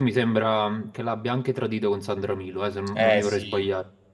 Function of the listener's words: taking over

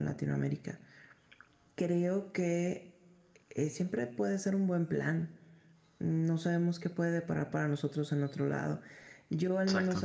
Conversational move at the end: listening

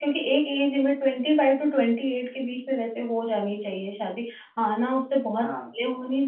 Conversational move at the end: listening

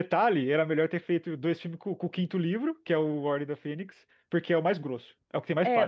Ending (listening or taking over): taking over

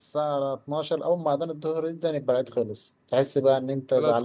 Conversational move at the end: listening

